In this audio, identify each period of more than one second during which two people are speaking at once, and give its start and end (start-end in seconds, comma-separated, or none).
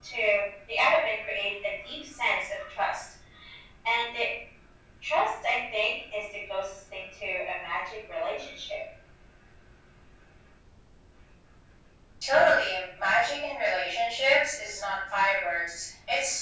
none